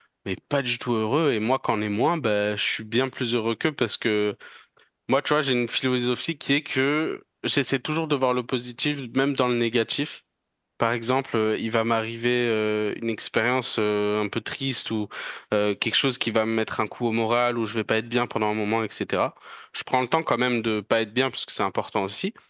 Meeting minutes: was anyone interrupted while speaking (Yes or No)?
No